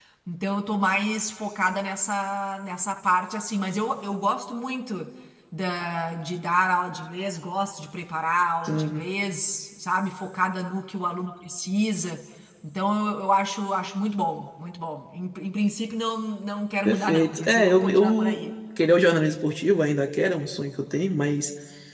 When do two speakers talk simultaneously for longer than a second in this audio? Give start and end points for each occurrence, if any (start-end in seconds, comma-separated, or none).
16.8-18.4